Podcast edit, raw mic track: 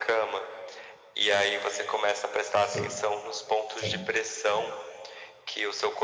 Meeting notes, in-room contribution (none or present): present